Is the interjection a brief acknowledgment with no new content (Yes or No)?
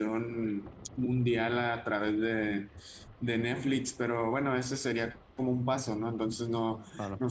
Yes